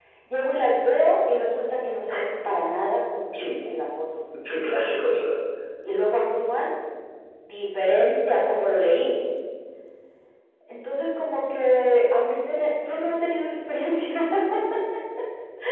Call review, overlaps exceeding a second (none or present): none